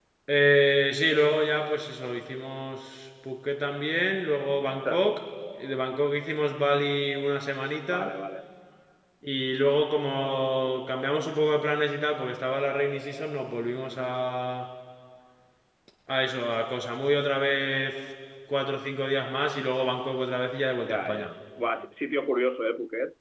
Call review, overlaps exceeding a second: none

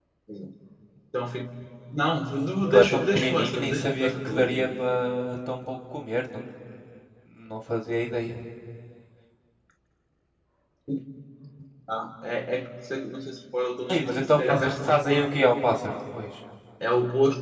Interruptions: present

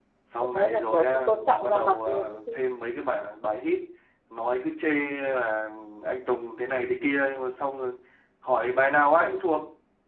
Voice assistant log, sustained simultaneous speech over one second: present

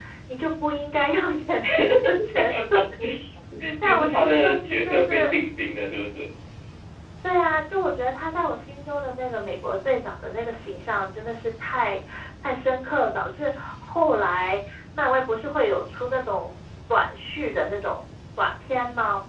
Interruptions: present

